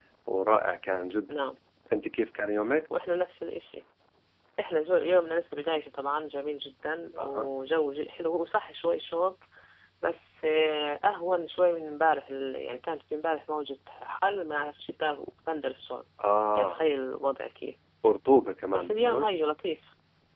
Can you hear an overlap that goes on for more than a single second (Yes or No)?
No